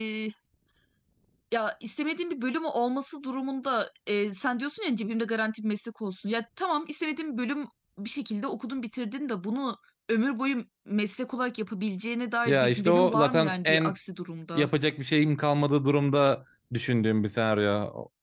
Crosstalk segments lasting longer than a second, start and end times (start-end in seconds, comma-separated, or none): 12.4-13.9